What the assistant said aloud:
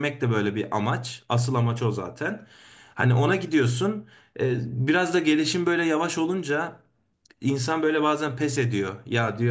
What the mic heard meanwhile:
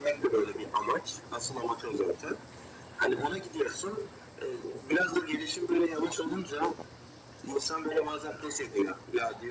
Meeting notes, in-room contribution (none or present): none